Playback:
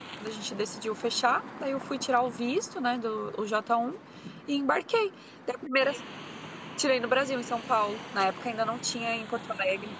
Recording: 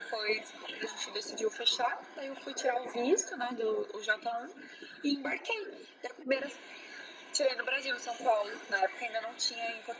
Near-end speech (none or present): none